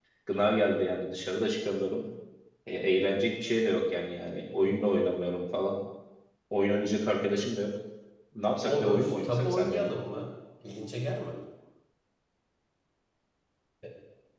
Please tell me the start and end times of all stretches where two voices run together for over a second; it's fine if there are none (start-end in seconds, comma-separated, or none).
8.7-9.9